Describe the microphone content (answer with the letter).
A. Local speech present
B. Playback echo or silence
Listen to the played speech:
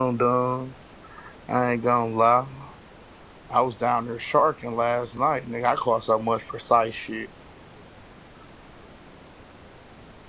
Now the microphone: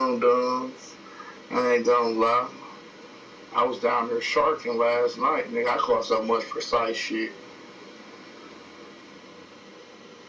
B